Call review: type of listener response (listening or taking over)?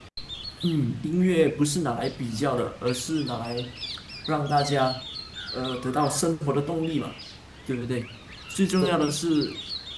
listening